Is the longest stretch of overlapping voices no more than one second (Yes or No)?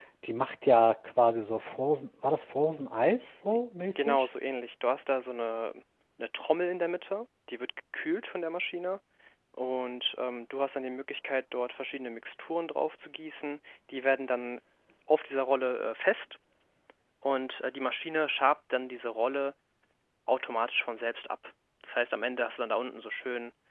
Yes